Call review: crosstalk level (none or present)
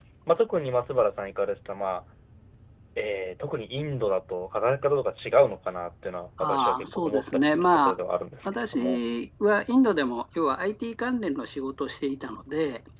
present